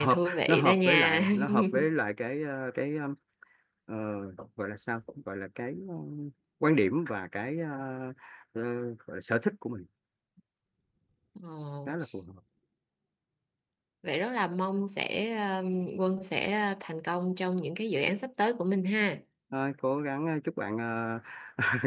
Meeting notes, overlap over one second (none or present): present